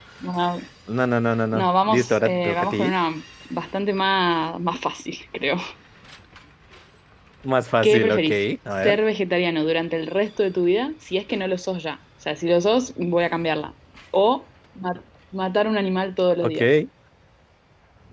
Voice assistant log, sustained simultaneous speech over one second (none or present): present